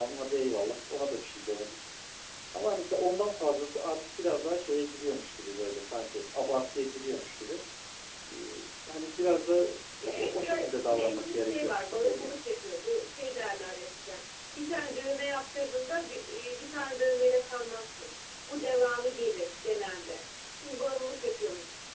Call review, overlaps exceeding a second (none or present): present